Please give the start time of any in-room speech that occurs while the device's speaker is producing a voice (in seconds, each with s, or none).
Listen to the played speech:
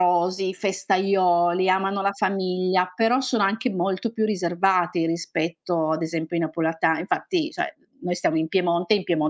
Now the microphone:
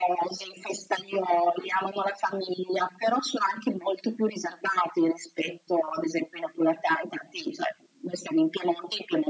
none